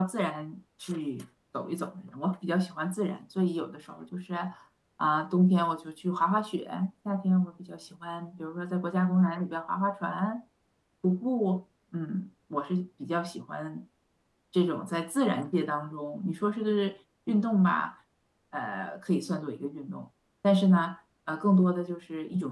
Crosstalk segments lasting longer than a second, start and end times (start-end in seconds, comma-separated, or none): none